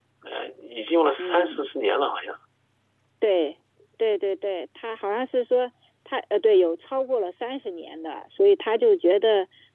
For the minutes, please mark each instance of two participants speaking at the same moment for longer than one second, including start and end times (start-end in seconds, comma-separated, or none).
none